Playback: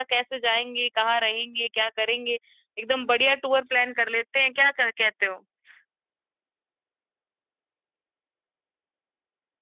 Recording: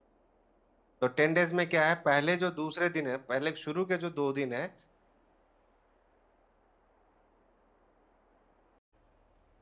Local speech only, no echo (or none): तो टेन डेज में क्या है पहले जो दूसरे दिन है पहले शुरू के जो दो दिन है